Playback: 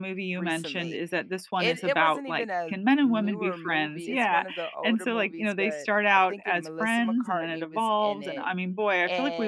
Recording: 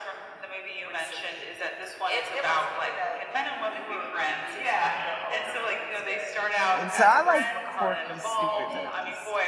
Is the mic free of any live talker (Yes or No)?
No